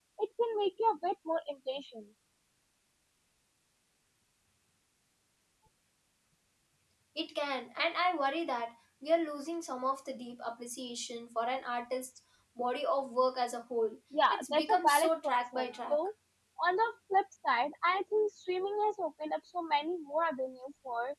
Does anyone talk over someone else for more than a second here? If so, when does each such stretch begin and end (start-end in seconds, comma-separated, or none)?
14.3-16.0